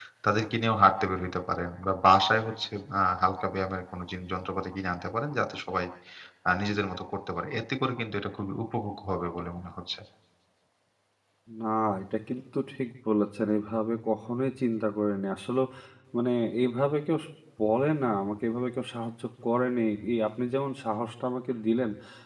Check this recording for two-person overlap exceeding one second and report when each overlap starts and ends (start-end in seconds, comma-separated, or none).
none